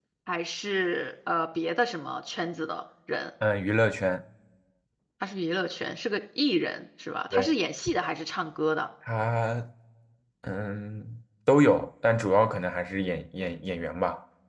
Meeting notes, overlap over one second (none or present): none